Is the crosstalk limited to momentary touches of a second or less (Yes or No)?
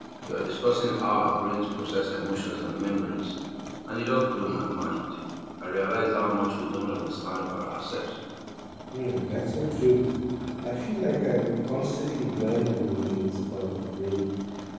Yes